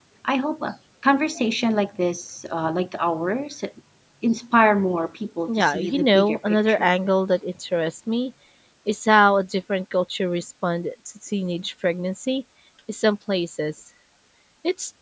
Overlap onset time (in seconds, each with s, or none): 5.5 s